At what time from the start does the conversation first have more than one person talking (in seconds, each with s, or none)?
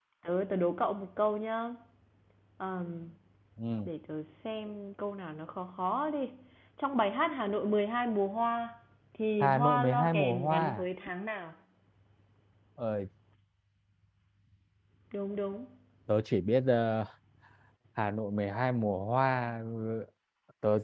9.4 s